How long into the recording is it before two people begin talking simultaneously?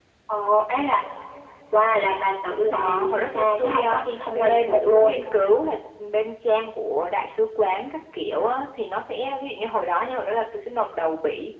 2.7 s

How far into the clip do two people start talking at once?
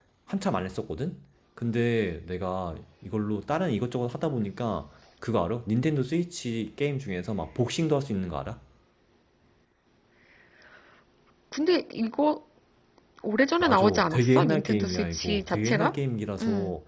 13.6 s

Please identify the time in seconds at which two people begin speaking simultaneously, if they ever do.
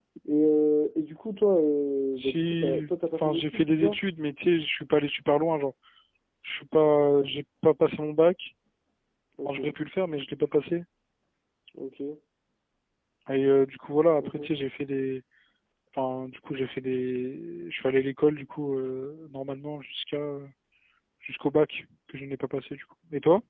2.1 s

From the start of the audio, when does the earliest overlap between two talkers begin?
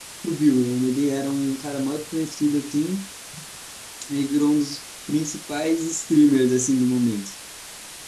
none

